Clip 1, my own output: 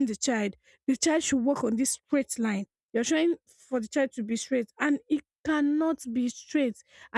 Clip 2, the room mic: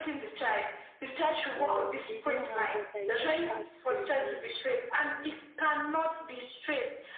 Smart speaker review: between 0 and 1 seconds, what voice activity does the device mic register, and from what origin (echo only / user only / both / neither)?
echo only